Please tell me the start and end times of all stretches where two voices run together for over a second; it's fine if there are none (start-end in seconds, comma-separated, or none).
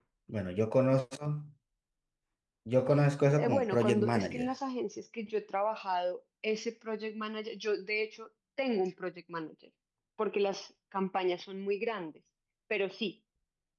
3.2-4.5